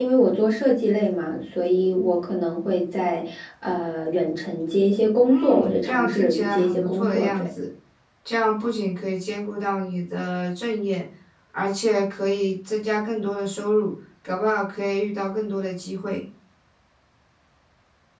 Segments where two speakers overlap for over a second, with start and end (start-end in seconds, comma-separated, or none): 5.2-7.5